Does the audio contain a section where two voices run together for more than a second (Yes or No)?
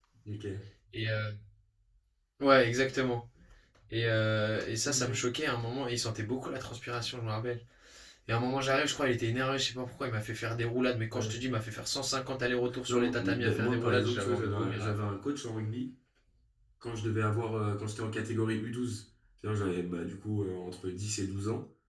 Yes